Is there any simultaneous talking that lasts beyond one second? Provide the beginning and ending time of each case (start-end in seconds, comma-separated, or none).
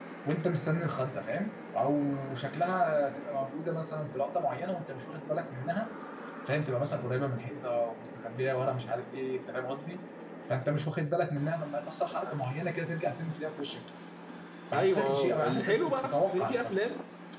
14.7-16.8